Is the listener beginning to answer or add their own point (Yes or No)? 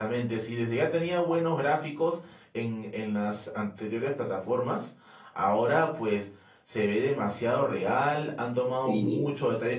No